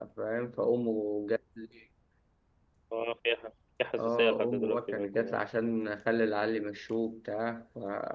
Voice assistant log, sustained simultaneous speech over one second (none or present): present